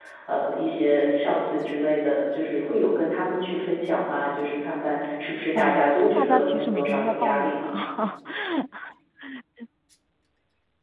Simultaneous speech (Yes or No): Yes